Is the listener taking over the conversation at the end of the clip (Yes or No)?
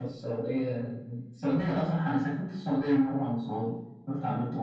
Yes